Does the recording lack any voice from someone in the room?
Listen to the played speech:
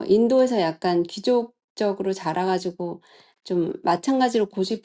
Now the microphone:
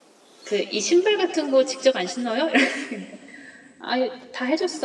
No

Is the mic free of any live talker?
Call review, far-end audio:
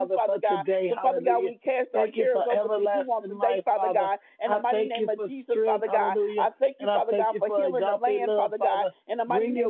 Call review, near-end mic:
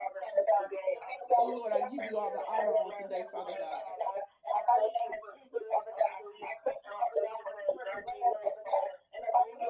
No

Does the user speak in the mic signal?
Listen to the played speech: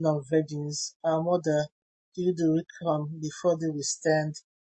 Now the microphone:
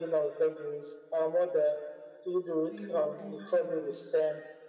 Yes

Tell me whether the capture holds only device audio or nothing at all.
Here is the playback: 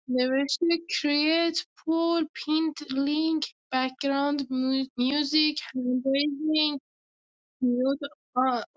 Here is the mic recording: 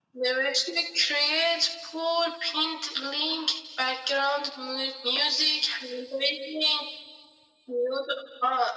Yes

